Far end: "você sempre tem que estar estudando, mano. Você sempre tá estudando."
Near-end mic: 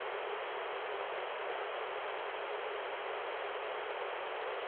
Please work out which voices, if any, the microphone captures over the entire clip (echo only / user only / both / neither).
neither